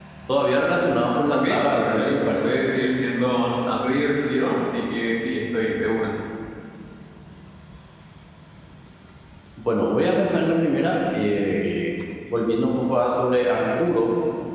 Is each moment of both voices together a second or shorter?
No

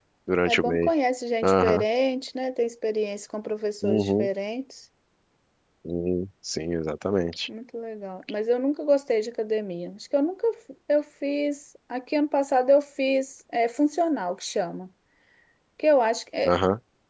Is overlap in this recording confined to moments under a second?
Yes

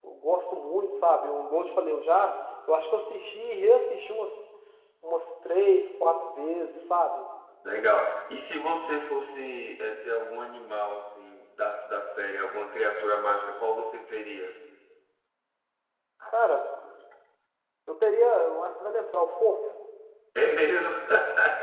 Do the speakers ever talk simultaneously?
No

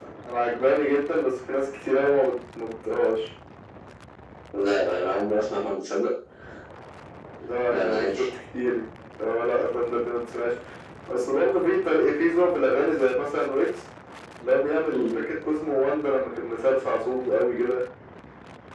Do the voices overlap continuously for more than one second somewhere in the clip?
No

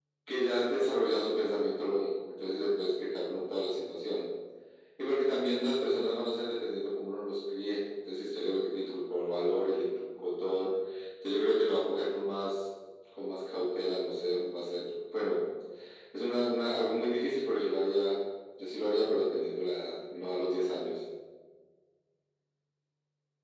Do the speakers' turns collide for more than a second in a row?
No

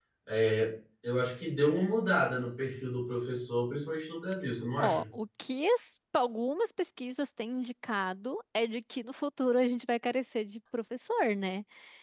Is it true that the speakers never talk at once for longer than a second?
Yes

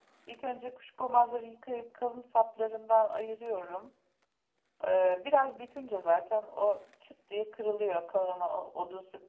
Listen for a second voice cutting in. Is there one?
No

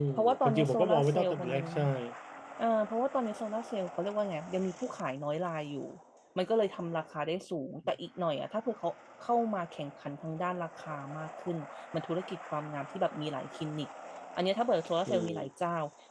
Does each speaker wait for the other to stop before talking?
No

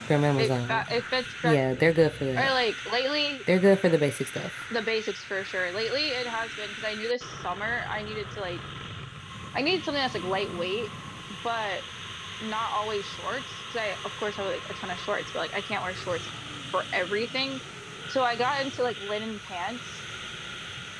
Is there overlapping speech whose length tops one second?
No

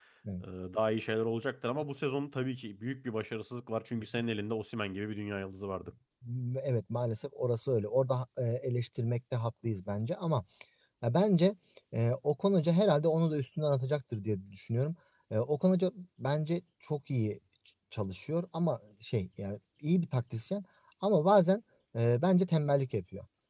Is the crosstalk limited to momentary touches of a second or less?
Yes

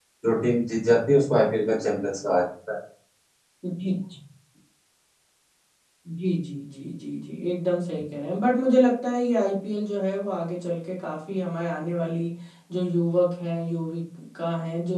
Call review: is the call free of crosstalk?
Yes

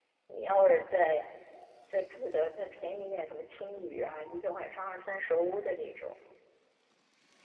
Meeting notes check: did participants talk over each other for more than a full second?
No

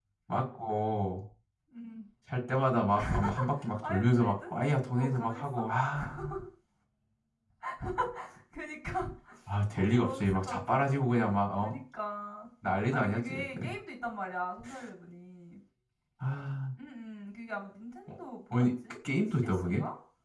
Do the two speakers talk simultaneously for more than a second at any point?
Yes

